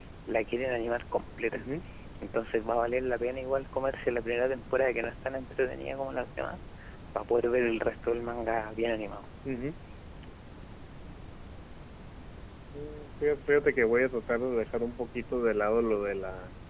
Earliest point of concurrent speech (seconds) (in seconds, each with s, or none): none